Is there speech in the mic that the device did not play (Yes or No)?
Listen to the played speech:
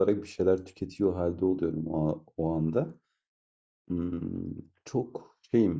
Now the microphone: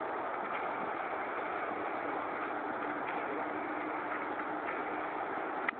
No